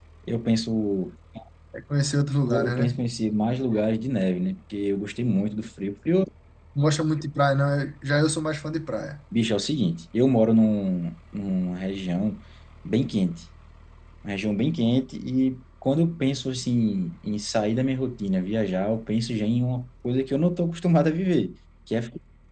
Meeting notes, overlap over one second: none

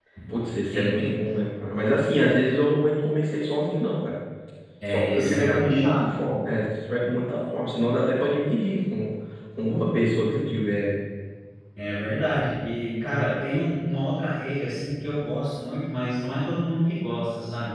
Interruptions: present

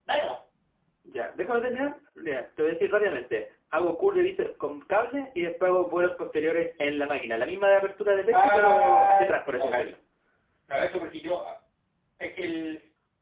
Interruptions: present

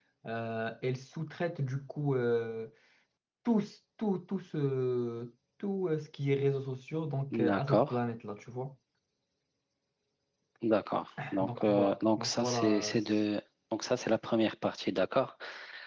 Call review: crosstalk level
present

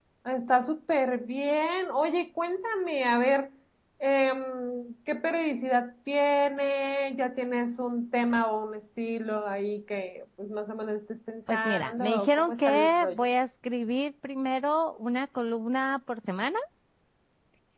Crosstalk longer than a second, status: present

